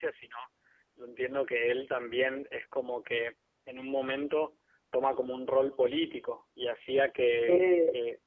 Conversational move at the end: listening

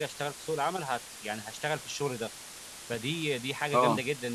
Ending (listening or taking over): listening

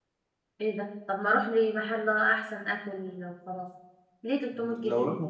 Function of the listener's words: taking over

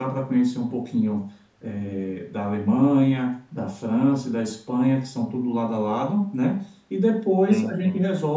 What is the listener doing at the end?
listening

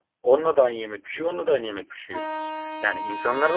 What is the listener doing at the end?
listening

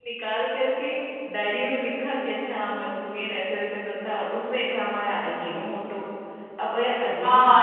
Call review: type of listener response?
taking over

